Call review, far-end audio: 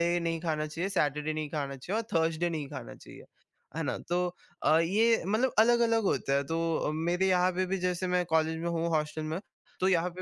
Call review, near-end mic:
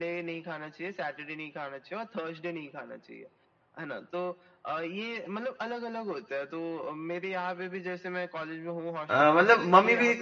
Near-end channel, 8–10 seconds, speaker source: both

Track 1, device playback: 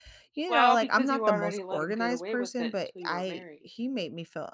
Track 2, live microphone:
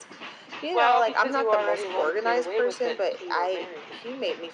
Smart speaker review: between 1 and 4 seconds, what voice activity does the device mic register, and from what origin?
echo only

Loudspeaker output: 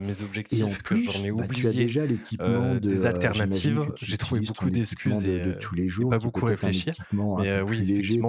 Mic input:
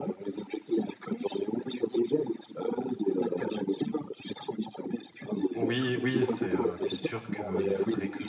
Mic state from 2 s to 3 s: echo only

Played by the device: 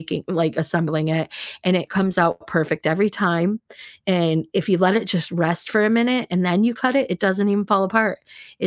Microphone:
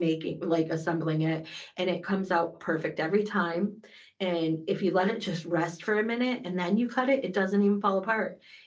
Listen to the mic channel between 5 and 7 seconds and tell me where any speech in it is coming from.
echo only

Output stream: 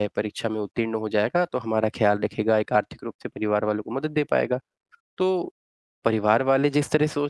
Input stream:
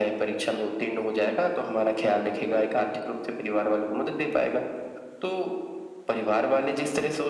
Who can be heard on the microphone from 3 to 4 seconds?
echo only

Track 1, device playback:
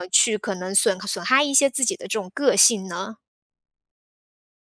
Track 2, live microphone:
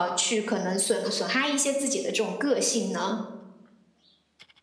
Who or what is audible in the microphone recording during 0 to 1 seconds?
echo only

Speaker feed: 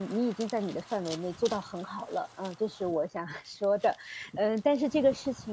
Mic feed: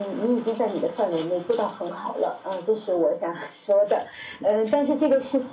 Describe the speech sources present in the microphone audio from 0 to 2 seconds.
echo only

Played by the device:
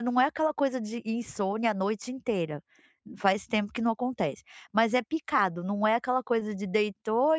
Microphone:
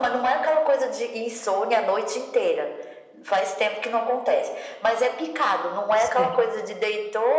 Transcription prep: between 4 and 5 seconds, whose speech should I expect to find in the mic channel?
echo only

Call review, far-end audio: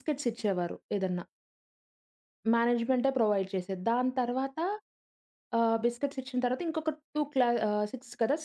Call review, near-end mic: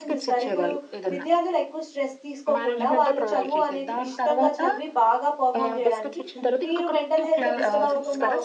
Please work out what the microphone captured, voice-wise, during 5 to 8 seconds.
both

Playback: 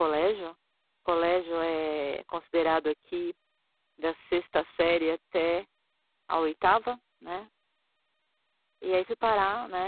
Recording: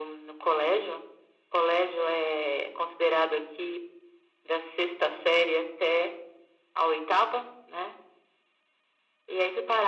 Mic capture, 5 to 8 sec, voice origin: echo only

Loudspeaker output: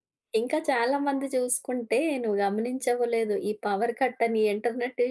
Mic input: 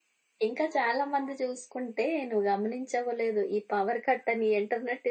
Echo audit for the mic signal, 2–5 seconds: echo only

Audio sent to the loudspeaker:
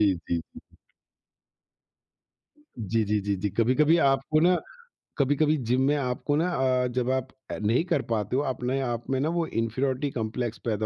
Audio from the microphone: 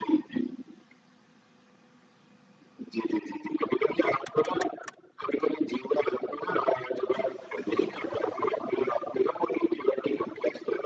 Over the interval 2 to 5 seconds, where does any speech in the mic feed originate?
echo only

